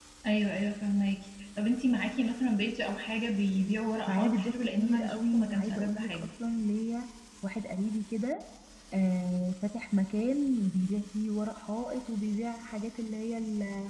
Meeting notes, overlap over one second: present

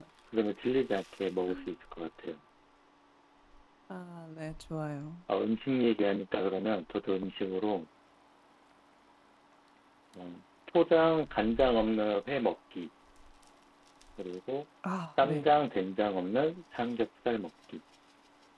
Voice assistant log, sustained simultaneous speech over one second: none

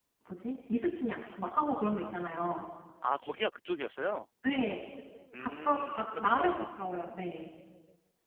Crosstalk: present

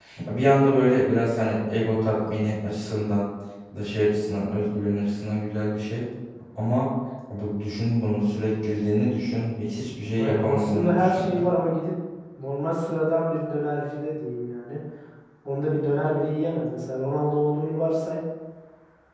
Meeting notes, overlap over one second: present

